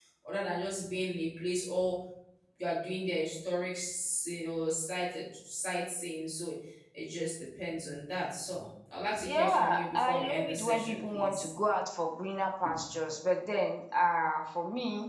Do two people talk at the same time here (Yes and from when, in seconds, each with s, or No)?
Yes, from 9.1 s